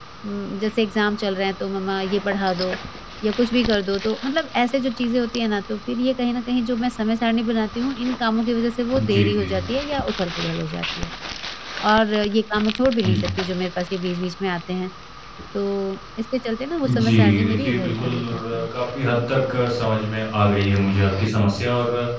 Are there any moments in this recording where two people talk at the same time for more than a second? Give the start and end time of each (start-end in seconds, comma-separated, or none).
16.9-18.6